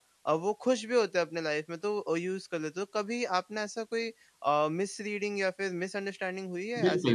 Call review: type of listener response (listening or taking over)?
taking over